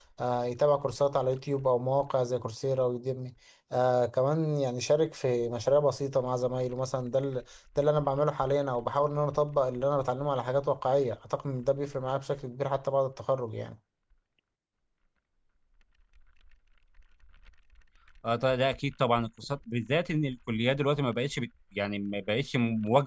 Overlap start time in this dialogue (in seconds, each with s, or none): none